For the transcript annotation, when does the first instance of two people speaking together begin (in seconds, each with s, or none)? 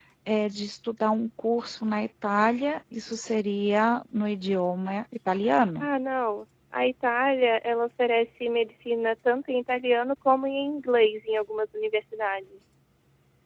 none